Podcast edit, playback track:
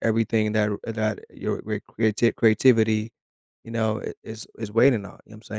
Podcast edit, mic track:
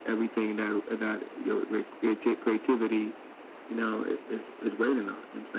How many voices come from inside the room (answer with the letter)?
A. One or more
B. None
B